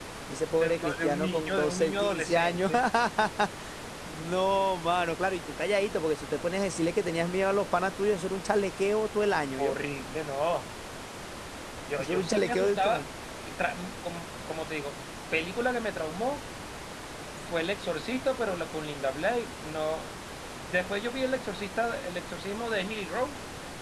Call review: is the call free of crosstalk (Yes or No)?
No